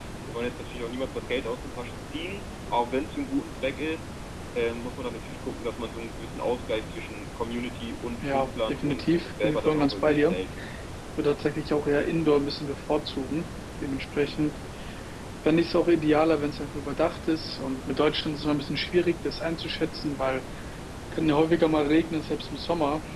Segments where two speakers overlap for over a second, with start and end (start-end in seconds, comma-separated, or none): 8.3-10.4